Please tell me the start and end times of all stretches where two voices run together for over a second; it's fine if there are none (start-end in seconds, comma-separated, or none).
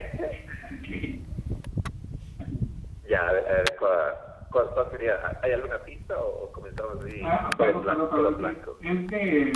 7.2-8.5